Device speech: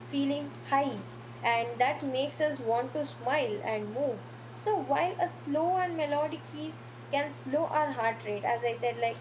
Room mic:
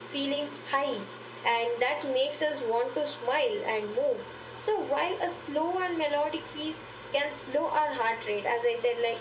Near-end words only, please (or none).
none